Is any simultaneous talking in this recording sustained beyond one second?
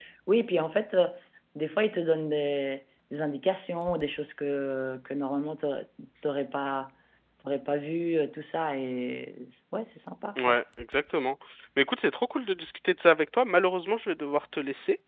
No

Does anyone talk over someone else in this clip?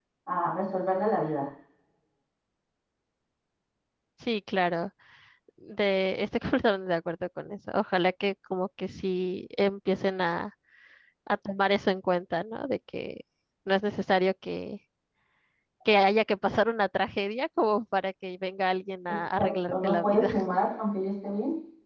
Yes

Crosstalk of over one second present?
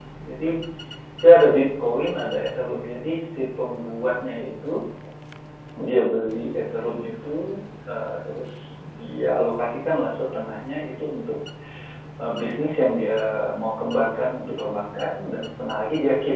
No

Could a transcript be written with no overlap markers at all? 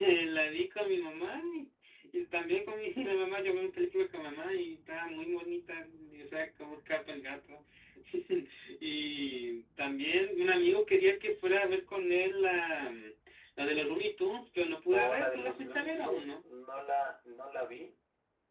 No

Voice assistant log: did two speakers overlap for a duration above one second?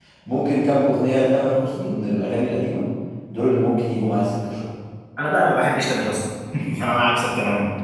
No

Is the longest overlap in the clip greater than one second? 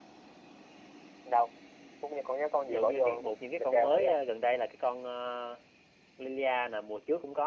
Yes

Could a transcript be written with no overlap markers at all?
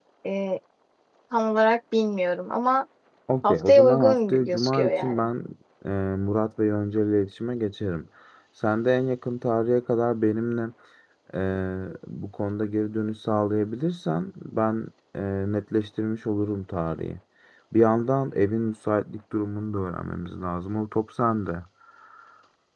No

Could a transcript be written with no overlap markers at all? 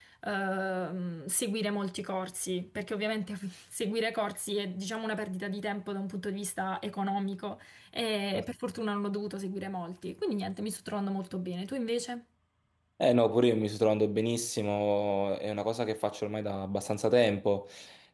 Yes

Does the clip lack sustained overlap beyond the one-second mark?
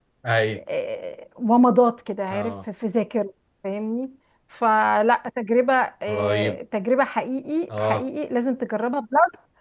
Yes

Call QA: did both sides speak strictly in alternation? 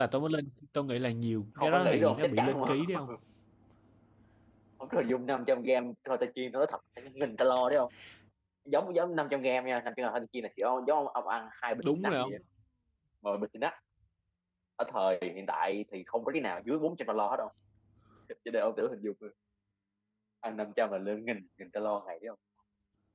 No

